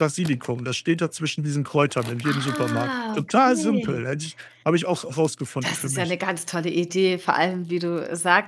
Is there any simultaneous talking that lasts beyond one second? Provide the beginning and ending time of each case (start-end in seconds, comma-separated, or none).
2.2-4.0